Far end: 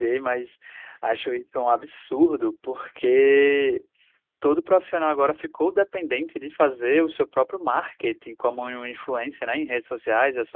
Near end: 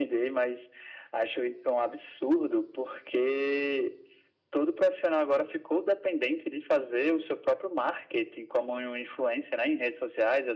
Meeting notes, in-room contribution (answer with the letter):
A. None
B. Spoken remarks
A